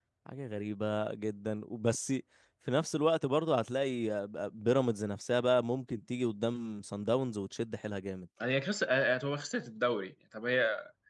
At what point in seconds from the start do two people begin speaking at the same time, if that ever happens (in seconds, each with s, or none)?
none